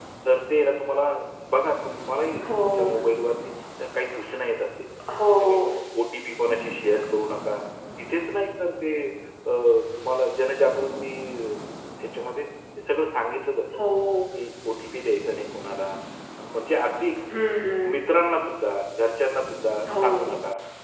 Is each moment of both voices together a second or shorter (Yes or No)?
Yes